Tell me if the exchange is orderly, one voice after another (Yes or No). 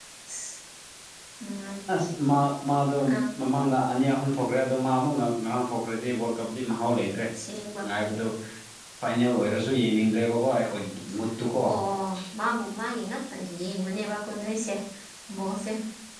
Yes